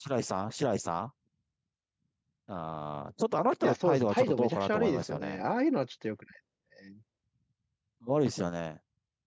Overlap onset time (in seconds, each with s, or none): 3.6 s